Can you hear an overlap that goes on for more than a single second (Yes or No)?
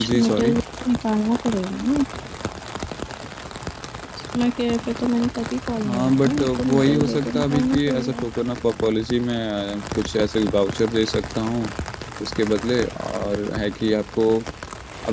Yes